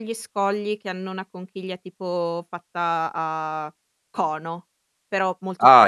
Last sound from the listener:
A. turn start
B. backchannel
A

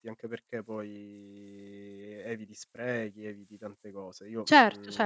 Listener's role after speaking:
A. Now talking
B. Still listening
A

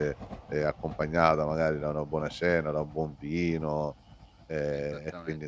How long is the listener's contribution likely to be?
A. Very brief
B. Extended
B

